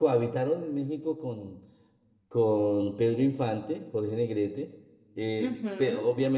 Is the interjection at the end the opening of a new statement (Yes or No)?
No